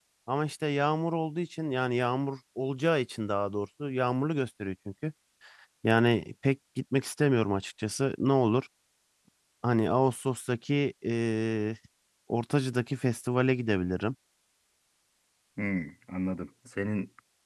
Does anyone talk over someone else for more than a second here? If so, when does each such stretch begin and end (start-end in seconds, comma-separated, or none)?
none